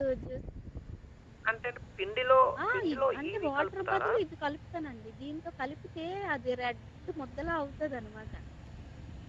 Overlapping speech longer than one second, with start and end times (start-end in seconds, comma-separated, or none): 2.7-4.1